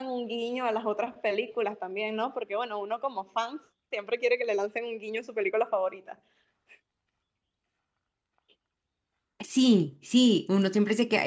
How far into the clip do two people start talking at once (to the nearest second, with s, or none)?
none